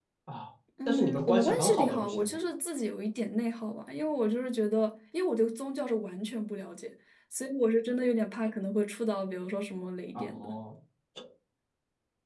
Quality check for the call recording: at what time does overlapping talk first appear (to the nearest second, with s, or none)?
1 s